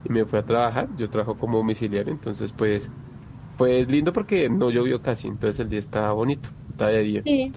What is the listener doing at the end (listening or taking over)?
listening